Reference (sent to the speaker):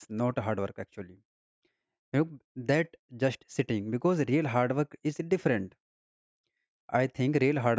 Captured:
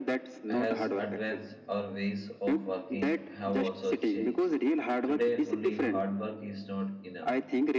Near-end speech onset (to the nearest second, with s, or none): 0 s